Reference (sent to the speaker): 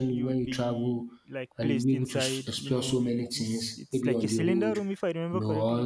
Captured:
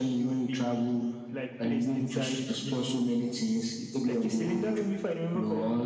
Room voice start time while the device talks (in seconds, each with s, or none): none